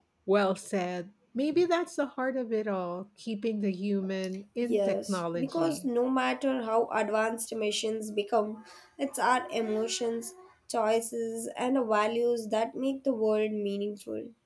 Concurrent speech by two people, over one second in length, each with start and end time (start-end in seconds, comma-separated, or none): 4.6-5.9